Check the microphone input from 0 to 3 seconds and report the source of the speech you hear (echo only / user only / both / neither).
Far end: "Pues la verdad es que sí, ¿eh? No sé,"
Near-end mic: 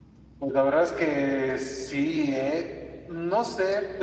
echo only